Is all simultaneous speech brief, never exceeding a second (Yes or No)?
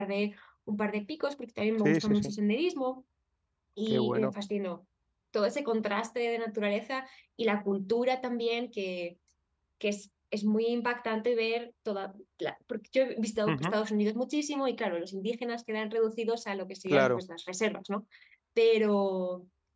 Yes